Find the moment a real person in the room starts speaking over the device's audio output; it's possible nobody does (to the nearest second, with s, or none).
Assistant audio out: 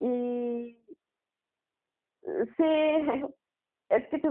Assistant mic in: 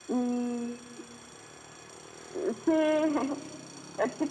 none